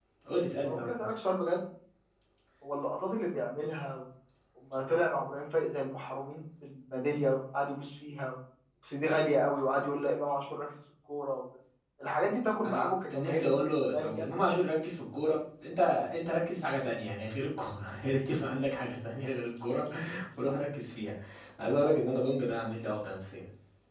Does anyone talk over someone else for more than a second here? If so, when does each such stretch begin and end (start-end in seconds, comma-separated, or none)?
12.6-14.3